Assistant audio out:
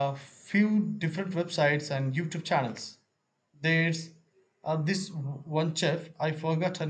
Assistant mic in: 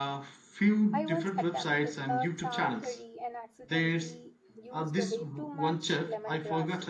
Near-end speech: present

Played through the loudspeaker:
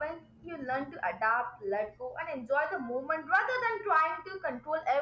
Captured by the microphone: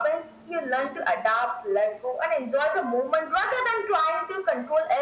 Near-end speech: none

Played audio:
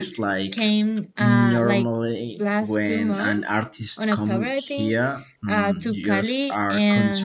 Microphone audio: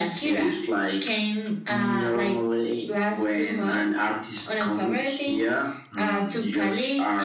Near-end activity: none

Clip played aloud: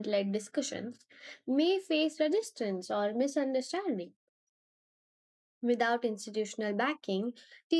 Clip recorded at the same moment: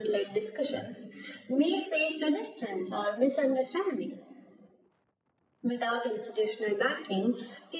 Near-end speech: none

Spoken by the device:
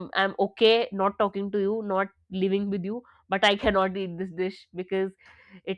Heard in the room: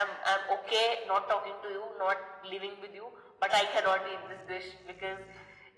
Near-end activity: none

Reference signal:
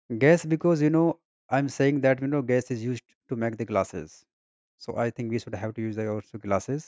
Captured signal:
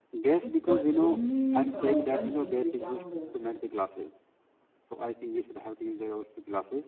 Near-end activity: present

